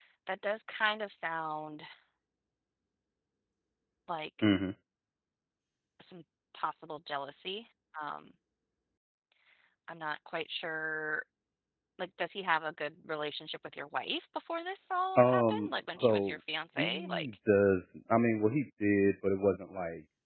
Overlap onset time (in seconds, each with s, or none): 15.2 s